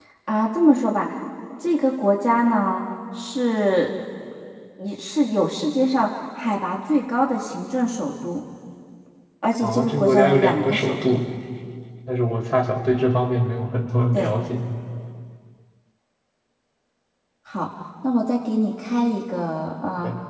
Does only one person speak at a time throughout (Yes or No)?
No